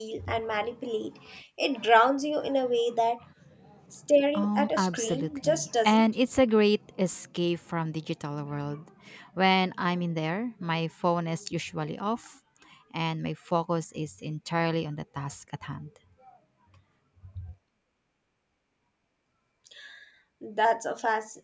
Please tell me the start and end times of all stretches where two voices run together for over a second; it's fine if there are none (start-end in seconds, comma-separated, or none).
4.3-6.0